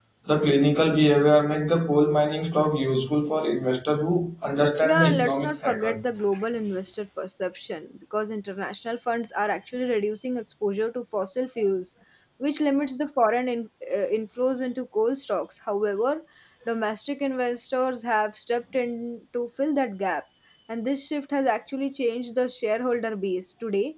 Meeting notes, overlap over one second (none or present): present